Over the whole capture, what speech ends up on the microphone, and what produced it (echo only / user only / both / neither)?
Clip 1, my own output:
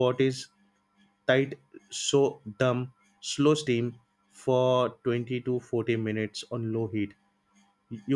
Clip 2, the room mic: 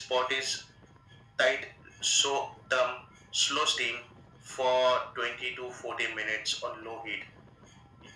echo only